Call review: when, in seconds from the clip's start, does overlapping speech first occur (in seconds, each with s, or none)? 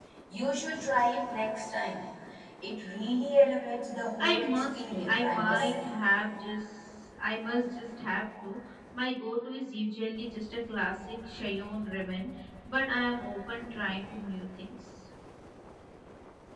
4.2 s